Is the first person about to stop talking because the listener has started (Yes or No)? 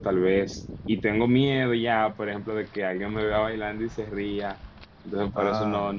No